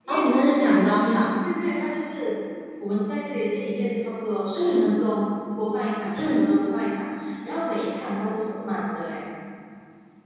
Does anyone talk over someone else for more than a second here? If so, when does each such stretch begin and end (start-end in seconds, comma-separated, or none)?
none